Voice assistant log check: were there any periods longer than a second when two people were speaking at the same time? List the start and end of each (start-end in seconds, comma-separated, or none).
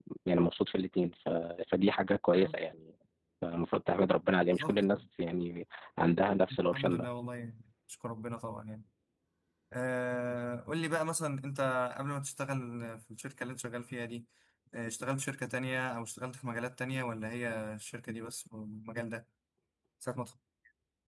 none